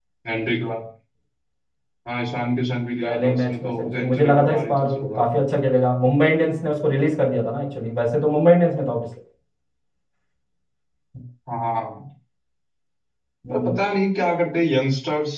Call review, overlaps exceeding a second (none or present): present